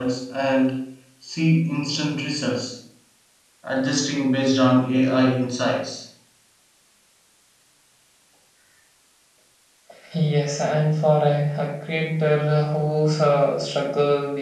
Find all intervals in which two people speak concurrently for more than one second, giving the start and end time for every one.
none

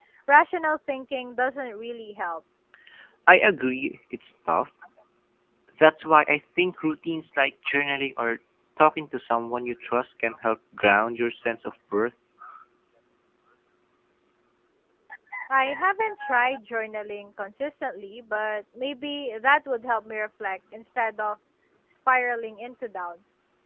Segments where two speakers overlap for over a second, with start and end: none

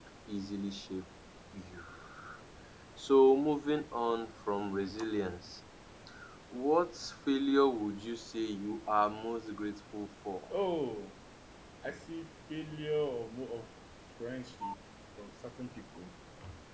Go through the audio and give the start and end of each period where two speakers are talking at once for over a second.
none

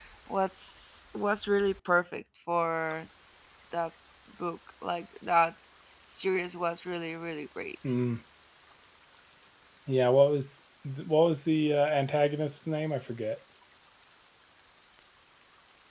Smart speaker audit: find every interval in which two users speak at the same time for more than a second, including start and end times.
none

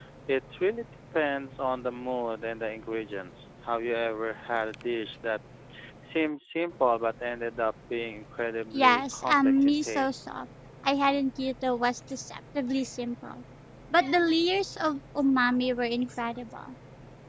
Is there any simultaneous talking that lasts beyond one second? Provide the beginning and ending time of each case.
8.7-10.2

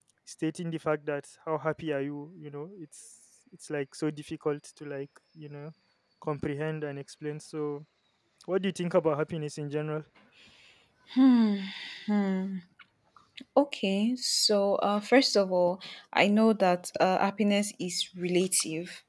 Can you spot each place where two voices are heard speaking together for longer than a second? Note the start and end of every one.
none

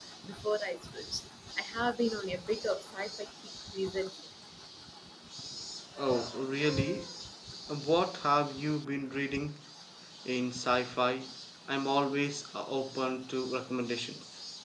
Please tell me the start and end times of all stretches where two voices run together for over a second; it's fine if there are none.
none

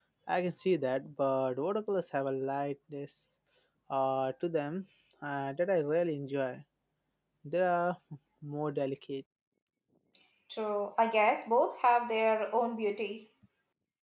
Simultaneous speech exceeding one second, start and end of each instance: none

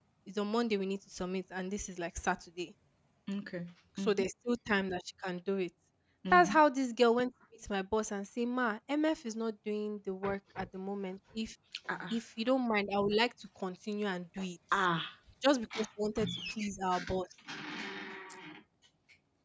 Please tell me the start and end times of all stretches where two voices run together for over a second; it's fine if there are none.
none

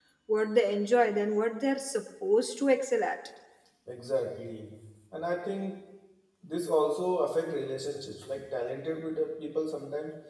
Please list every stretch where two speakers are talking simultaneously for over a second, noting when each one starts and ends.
none

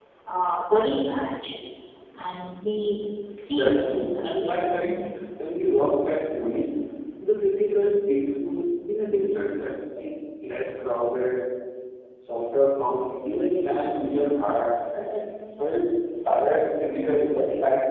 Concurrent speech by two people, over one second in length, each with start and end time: 3.5-5.0

